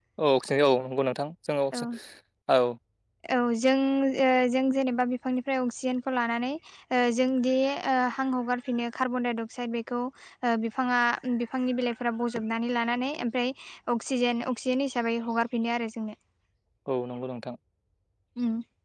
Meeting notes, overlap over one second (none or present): none